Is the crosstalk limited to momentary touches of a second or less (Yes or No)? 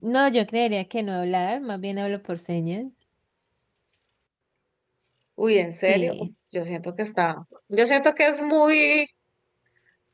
Yes